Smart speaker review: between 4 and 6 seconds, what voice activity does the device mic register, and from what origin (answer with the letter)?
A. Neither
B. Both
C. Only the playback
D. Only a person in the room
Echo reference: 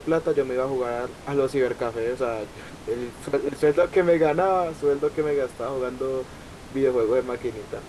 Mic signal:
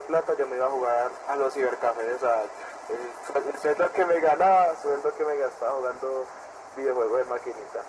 C